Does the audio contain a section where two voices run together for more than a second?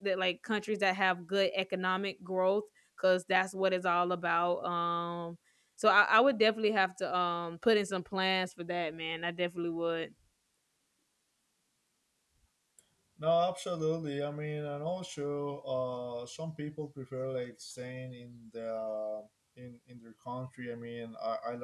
No

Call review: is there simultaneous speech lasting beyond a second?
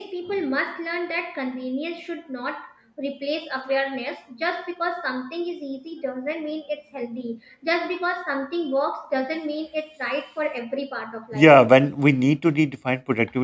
No

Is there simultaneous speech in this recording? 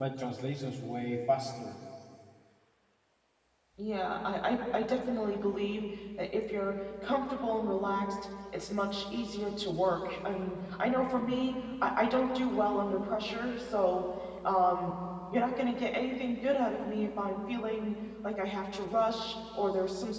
No

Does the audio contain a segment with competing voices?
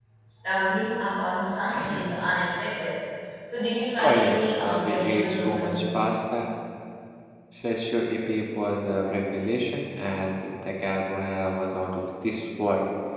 Yes, from 4.0 s

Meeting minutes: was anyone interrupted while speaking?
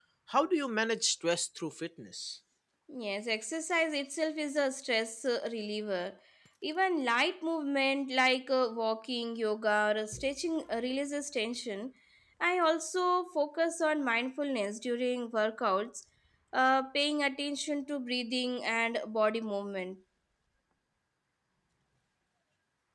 No

